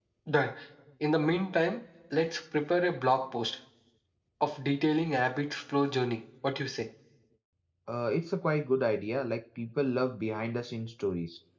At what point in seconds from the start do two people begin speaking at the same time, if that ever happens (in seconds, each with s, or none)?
none